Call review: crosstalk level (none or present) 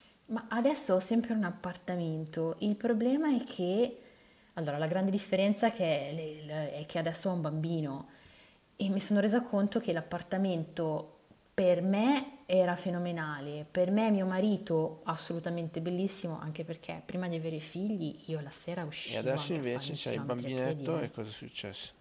present